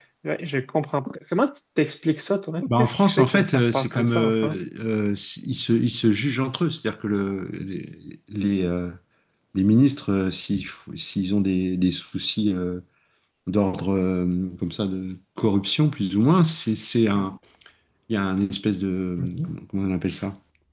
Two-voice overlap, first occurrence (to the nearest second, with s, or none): 3 s